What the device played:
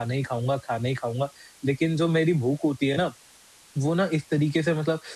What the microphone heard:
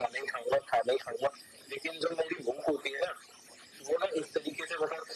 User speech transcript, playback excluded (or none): none